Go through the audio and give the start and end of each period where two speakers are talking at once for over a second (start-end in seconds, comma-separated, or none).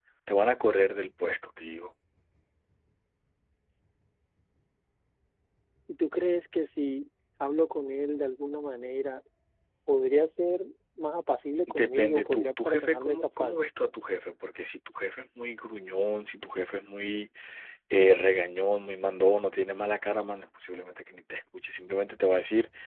11.7-13.6